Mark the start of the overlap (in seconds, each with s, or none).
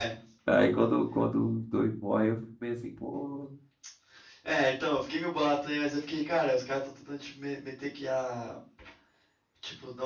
none